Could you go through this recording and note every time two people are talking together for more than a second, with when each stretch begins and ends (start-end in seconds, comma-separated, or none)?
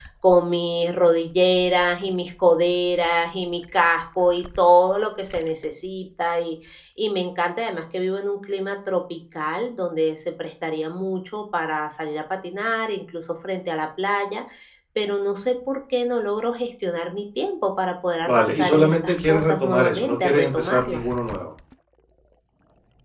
18.2-21.0